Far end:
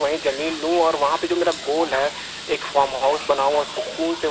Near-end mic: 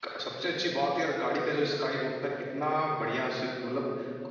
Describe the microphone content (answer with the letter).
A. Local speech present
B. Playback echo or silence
A